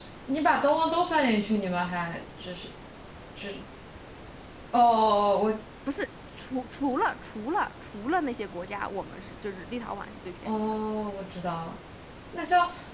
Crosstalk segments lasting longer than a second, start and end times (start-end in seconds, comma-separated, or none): none